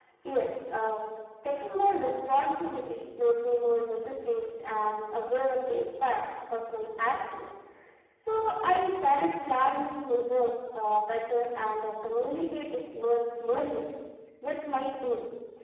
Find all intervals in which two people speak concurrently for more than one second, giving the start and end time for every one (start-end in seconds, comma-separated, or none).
none